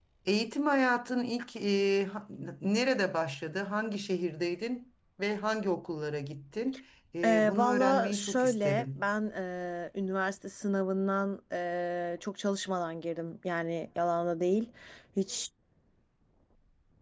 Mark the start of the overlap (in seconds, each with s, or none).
7.2 s